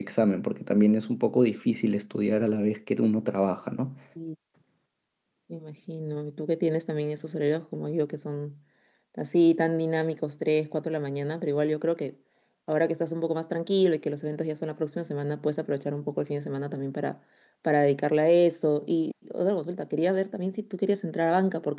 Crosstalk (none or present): none